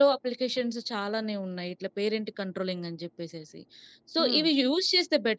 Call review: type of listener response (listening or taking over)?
listening